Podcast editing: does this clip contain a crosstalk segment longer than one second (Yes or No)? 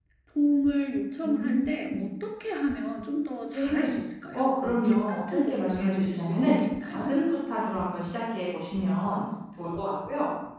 Yes